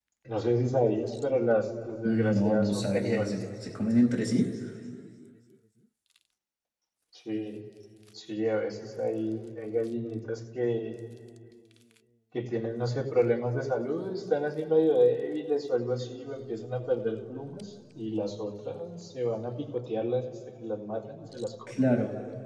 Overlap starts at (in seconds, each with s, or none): 2.0 s